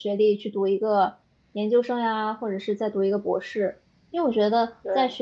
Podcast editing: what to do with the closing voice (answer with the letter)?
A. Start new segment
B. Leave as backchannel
B